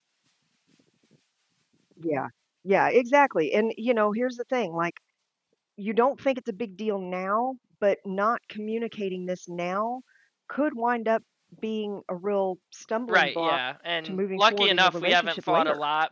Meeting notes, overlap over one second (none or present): present